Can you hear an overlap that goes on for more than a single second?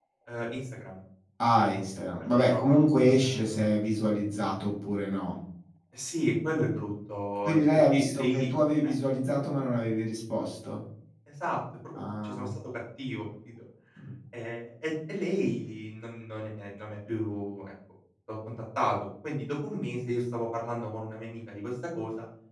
Yes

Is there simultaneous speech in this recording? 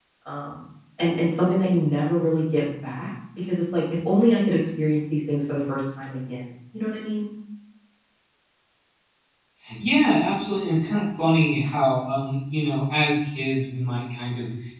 No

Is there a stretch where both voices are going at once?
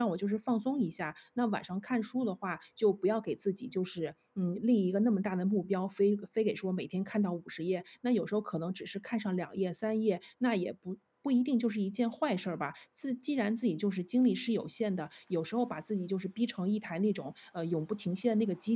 No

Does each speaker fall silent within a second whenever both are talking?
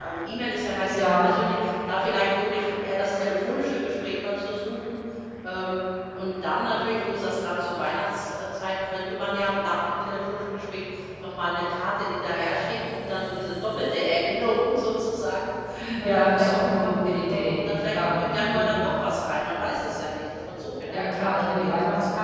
No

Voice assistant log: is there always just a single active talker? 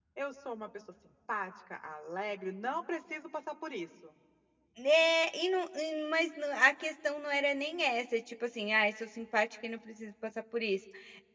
Yes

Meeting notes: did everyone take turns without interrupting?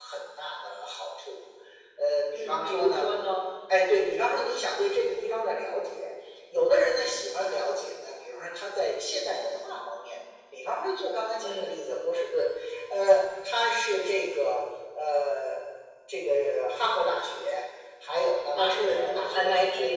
No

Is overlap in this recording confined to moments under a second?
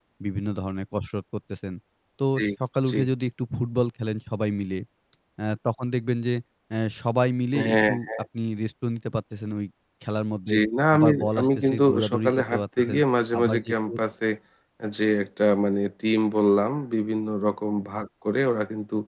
No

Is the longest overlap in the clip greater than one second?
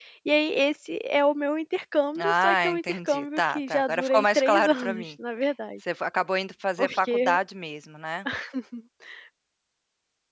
Yes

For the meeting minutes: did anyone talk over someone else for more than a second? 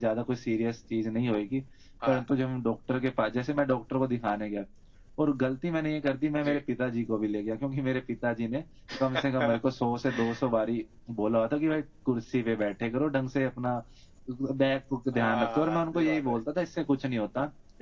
Yes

